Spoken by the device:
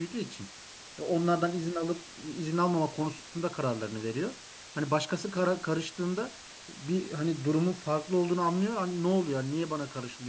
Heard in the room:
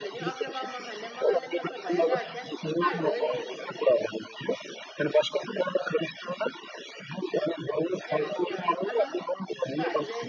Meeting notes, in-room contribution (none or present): present